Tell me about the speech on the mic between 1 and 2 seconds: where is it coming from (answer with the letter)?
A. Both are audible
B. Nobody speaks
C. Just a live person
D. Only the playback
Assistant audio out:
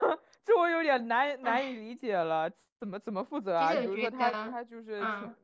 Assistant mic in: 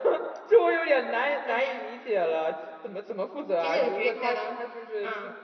D